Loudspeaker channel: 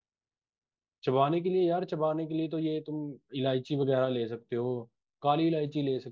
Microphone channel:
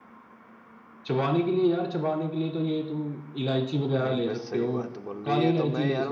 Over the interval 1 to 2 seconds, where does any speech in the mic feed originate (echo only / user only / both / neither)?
echo only